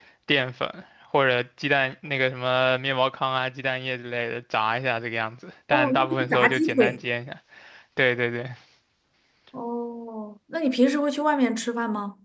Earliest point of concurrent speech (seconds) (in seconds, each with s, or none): 5.7 s